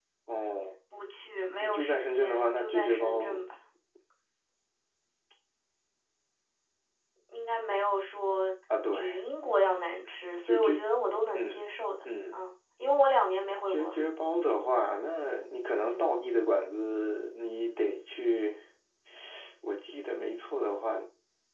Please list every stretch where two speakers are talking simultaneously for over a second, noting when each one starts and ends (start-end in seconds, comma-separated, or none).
1.6-3.4